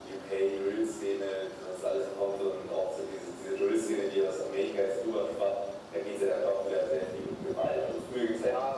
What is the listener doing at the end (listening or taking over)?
taking over